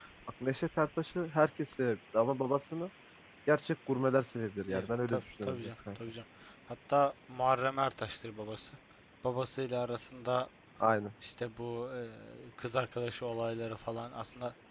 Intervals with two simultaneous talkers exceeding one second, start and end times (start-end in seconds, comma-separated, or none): 4.7-6.0